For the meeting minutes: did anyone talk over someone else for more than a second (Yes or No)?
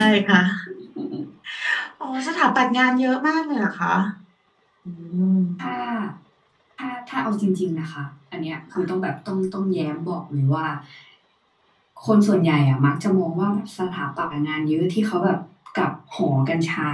No